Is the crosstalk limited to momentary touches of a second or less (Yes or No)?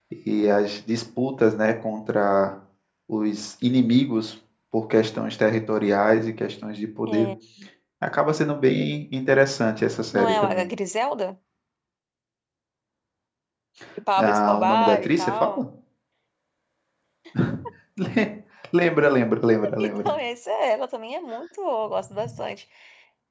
No